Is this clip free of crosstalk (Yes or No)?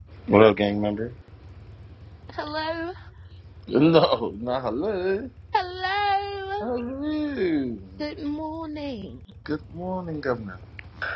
Yes